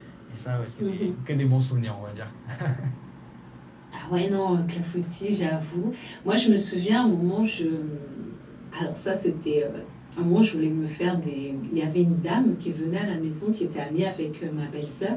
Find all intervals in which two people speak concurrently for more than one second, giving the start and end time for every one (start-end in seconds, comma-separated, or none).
none